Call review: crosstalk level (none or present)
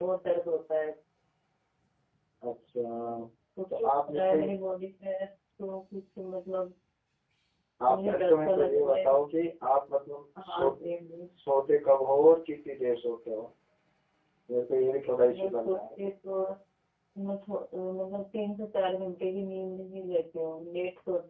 present